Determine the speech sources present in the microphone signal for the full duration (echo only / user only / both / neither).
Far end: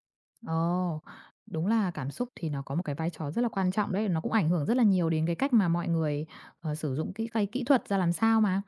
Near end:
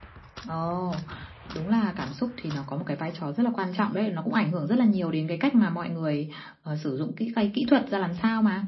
echo only